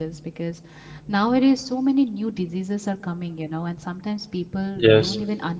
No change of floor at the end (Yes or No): Yes